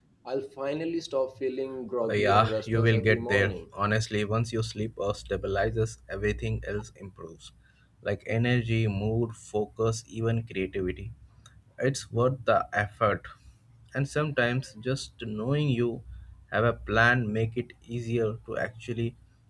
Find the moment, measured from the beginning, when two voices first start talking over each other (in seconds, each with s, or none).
2.0 s